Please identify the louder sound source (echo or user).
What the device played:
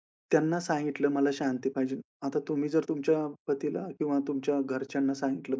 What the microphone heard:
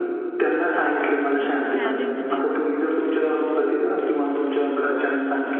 echo